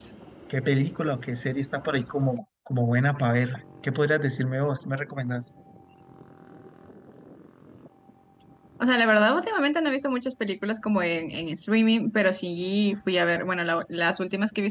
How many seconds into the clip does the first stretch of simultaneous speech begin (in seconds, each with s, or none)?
none